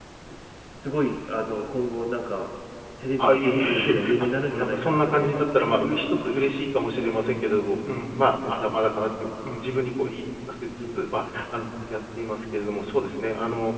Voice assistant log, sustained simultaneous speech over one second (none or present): present